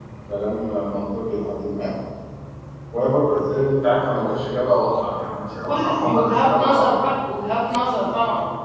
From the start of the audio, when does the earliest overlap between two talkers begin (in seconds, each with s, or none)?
5.6 s